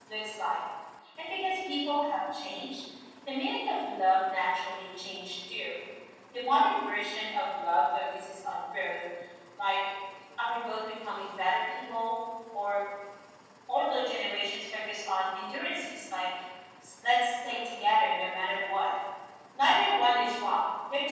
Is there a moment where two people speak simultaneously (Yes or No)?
No